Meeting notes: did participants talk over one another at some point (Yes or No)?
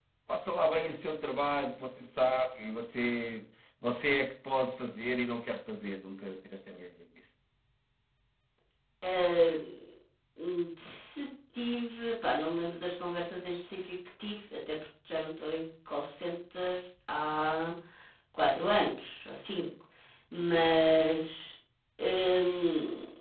No